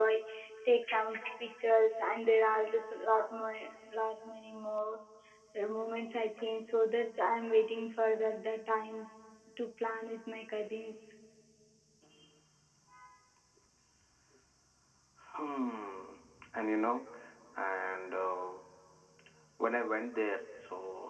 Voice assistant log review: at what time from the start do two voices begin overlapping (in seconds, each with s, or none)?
none